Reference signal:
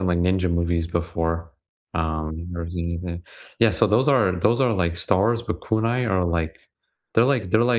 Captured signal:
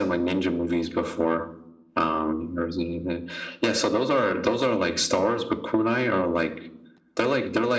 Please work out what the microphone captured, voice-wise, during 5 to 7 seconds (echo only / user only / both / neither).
echo only